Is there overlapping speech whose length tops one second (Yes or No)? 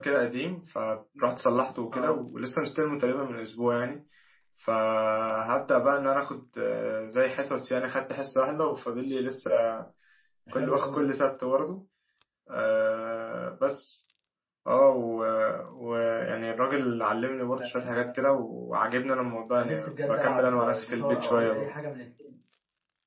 Yes